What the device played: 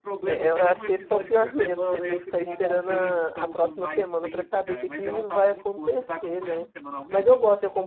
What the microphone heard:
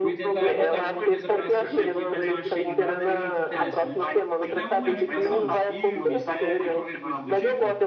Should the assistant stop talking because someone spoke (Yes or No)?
Yes